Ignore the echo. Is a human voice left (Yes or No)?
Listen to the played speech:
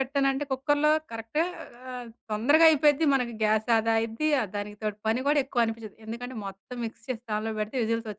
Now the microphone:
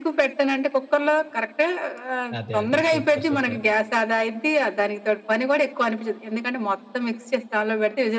Yes